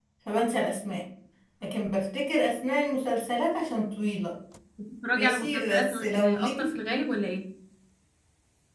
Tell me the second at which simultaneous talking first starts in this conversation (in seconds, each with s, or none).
5.1 s